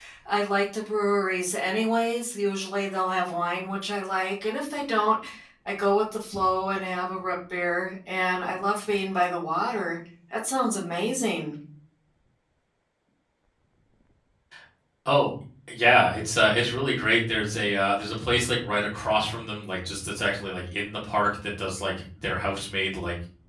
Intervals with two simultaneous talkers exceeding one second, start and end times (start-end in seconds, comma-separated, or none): none